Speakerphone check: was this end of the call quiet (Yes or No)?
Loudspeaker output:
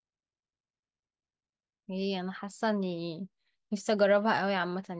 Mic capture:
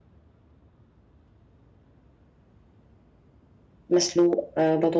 No